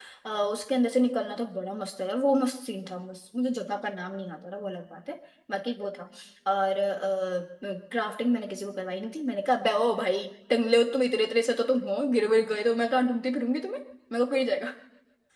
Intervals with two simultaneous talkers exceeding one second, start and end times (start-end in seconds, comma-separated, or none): none